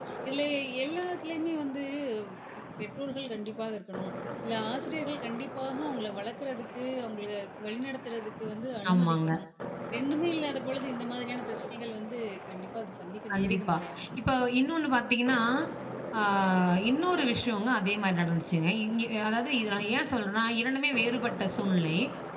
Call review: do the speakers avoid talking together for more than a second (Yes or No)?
Yes